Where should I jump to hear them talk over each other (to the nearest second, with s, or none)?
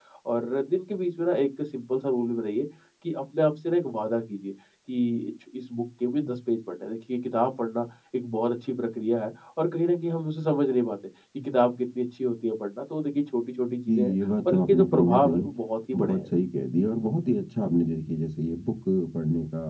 14 s